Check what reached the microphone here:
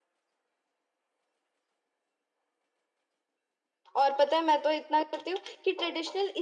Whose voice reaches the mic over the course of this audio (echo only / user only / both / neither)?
user only